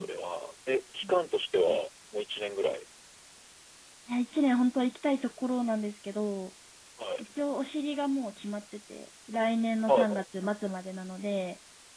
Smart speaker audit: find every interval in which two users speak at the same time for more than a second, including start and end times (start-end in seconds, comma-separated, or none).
none